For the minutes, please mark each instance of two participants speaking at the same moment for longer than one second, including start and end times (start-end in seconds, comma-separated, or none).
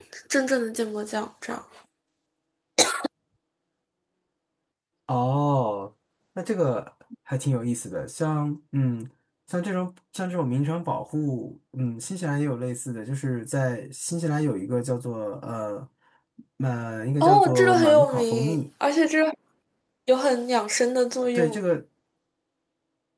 17.2-18.6